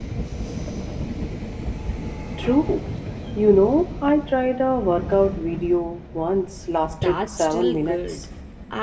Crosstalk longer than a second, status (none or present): present